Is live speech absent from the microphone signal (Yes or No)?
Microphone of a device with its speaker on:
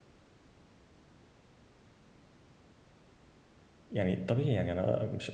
No